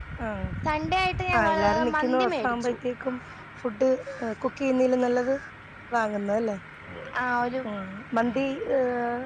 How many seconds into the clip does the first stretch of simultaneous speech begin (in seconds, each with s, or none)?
1.4 s